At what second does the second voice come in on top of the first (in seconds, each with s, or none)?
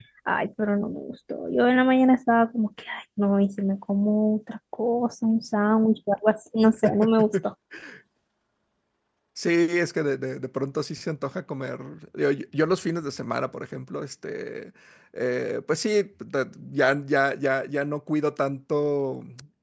none